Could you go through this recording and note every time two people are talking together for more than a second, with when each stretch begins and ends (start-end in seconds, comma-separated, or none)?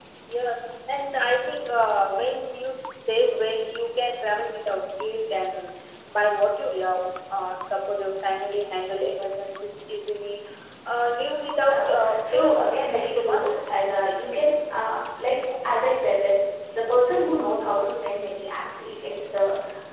11.7-13.6